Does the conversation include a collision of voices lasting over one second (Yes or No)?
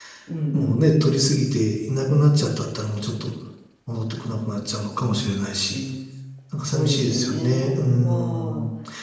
Yes